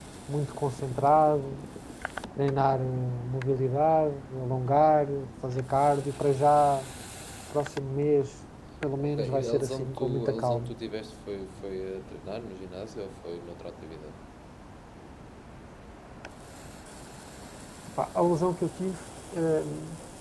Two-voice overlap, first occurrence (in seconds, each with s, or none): 9.0 s